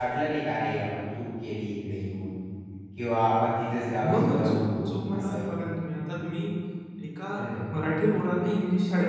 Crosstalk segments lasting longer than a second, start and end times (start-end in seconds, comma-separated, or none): 4.1-5.5